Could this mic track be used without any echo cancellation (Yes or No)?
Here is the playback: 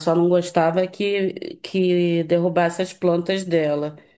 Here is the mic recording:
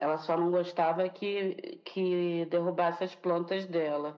No